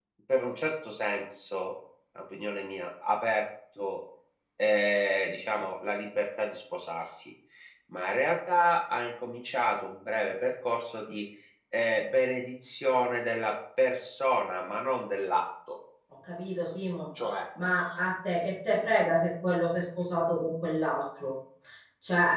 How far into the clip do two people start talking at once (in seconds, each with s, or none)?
none